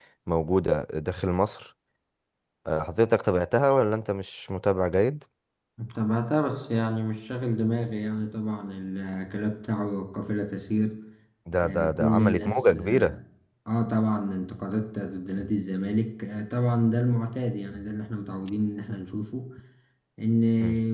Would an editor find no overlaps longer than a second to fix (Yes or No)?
No